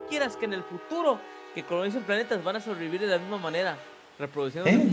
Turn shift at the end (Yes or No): Yes